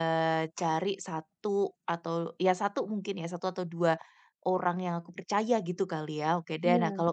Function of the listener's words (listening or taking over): listening